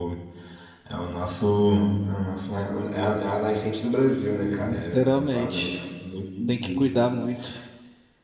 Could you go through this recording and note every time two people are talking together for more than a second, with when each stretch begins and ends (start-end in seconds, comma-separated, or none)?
4.6-5.8